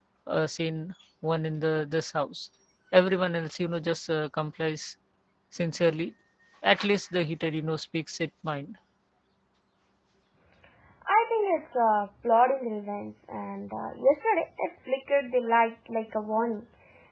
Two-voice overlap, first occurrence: none

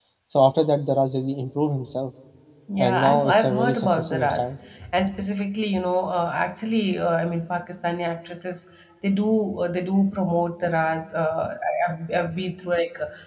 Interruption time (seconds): 2.8 s

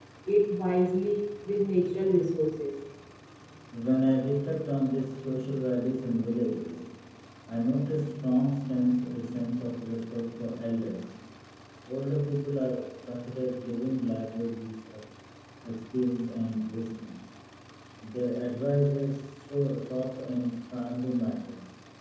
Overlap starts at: none

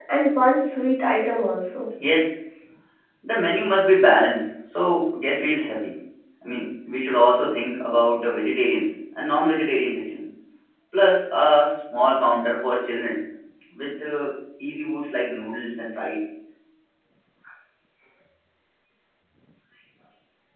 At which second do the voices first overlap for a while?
none

